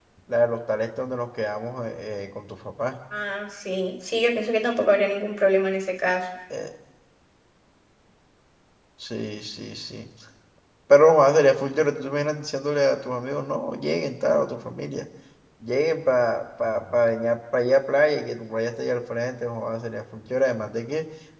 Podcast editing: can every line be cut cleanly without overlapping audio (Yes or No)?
Yes